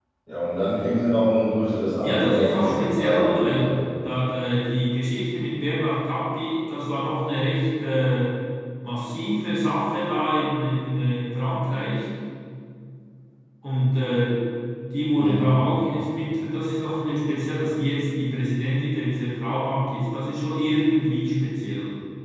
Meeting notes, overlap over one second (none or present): present